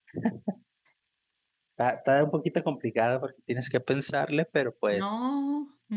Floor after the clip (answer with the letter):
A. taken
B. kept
A